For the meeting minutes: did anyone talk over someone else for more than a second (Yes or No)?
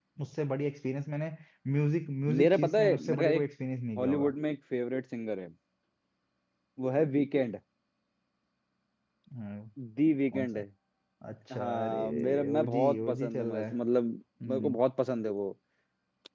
Yes